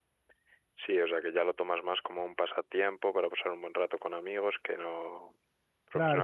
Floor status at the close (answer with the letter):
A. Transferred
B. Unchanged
A